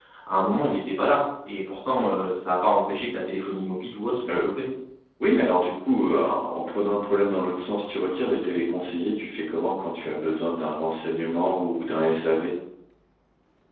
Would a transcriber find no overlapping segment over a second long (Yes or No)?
Yes